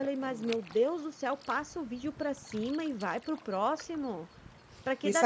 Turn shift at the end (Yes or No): Yes